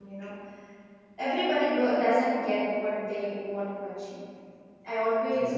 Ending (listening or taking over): listening